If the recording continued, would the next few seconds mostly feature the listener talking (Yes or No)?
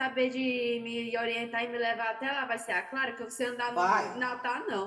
No